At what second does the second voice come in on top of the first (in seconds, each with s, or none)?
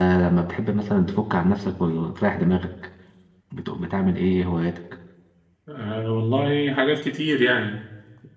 none